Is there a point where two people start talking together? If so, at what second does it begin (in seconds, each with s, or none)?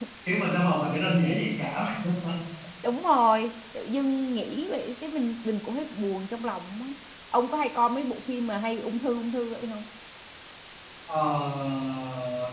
none